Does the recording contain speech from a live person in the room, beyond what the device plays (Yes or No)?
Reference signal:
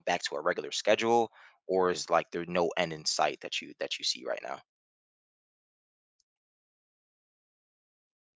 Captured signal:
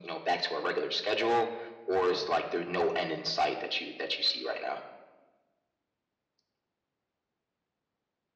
No